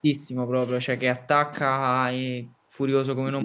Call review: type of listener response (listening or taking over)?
taking over